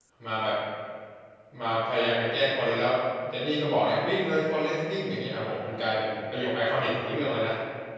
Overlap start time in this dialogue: none

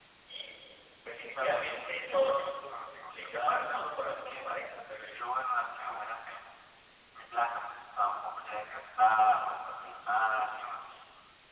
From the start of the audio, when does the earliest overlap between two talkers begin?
1.4 s

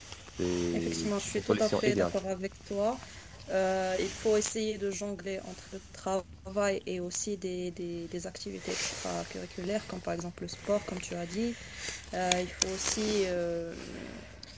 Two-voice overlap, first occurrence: 0.7 s

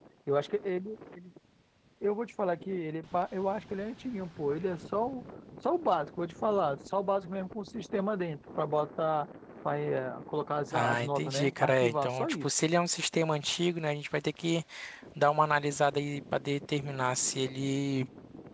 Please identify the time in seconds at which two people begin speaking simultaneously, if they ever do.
10.7 s

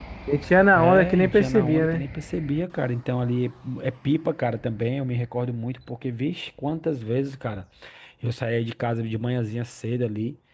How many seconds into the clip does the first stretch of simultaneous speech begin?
0.8 s

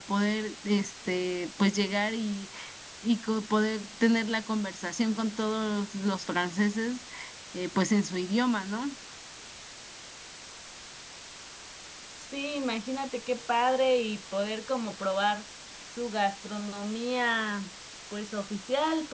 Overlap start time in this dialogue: none

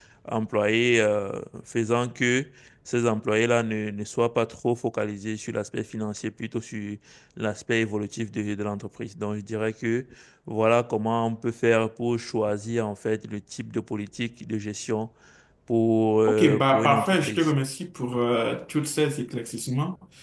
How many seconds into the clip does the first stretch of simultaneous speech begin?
16.3 s

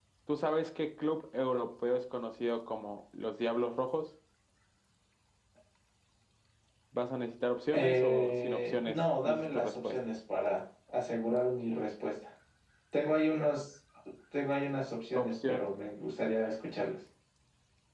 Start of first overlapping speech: 7.7 s

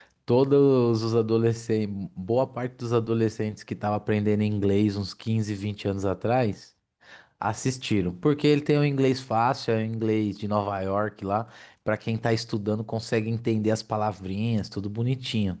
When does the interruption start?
none

